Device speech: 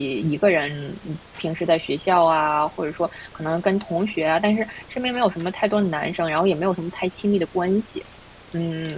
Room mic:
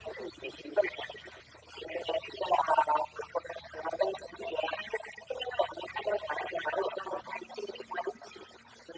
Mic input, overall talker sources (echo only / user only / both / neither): echo only